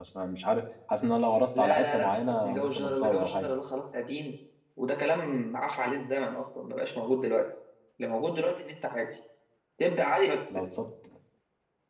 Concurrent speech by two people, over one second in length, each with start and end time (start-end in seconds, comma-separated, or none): 1.6-3.5